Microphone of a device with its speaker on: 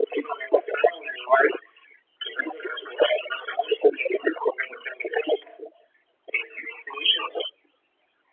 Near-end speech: none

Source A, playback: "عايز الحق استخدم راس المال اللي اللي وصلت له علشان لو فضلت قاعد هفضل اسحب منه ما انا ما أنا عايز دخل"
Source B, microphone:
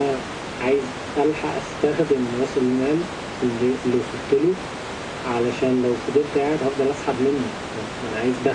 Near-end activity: none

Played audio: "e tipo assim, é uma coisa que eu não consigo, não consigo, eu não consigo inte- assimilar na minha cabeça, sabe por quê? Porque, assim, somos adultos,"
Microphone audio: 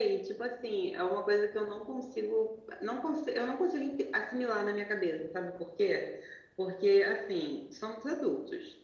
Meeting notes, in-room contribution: none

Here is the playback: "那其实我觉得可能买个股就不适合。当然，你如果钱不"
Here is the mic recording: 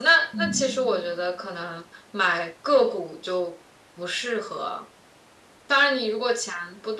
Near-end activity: present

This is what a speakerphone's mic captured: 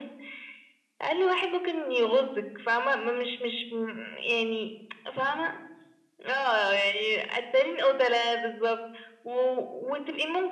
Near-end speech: none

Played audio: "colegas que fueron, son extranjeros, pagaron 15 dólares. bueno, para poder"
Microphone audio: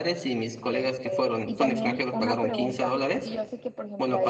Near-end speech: present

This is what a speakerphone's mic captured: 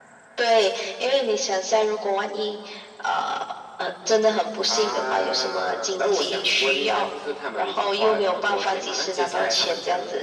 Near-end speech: none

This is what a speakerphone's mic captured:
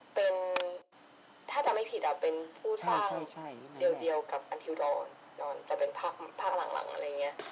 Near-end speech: present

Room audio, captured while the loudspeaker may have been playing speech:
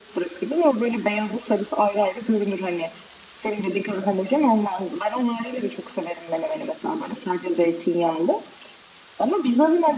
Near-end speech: none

